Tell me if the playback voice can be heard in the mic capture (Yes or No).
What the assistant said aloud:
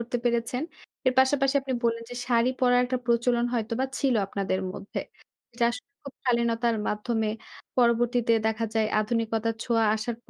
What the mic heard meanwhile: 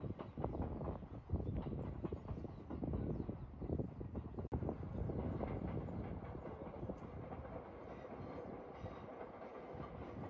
No